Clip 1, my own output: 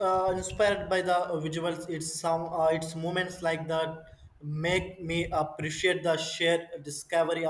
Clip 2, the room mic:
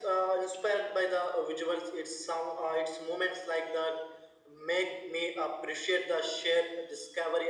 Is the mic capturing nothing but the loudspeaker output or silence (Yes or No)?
Yes